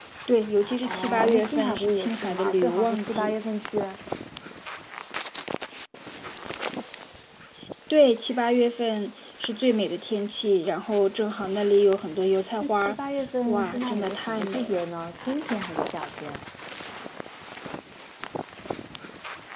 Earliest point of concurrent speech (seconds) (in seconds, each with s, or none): 0.8 s